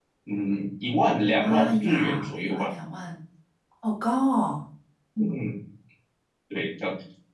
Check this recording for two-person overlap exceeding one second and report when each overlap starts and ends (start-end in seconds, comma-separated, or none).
1.2-2.6